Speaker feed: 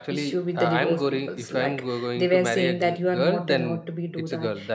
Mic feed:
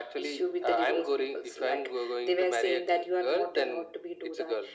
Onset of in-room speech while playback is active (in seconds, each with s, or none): none